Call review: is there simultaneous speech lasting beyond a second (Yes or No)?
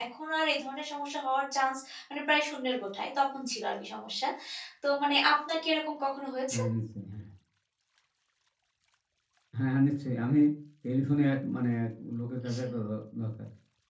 No